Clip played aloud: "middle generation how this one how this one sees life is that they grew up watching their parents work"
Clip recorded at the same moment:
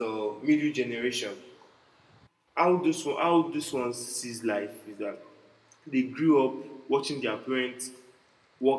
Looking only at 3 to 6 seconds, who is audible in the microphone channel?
echo only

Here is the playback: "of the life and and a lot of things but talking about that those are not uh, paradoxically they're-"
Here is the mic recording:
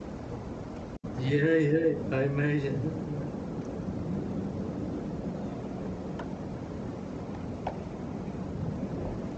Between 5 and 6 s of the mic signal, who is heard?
neither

